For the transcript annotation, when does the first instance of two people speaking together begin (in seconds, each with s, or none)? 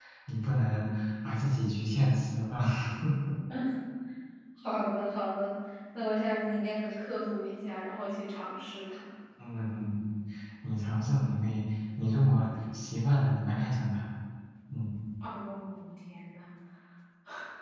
none